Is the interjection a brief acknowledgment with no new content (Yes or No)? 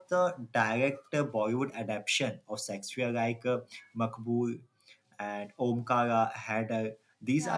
Yes